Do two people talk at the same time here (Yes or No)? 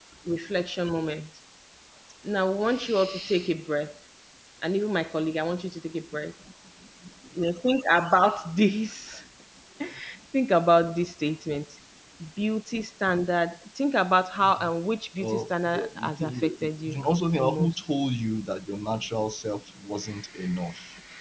Yes